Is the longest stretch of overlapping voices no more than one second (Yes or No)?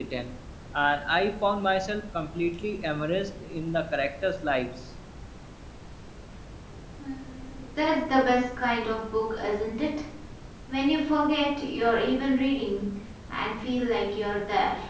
Yes